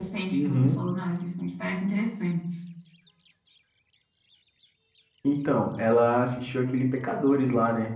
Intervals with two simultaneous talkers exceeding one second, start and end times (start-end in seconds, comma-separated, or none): none